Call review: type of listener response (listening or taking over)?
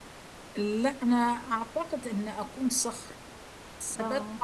listening